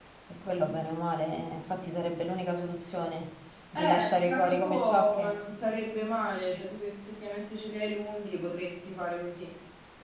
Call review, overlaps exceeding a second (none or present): present